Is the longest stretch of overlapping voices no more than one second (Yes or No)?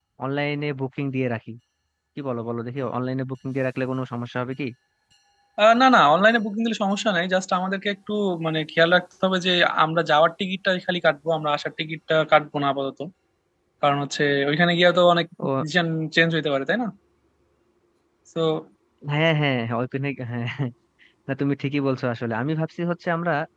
Yes